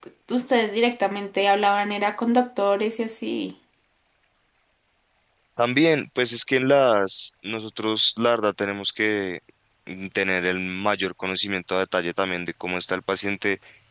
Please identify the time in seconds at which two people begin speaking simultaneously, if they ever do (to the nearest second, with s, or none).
none